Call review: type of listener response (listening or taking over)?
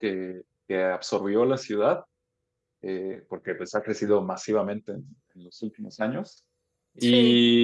listening